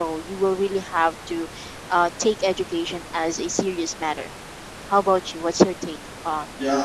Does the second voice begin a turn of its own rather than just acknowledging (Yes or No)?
Yes